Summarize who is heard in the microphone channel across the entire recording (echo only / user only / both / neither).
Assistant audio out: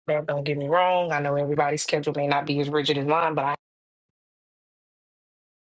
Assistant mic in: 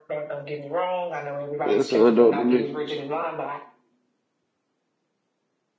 both